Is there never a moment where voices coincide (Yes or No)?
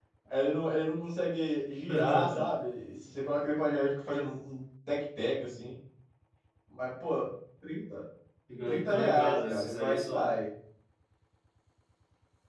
No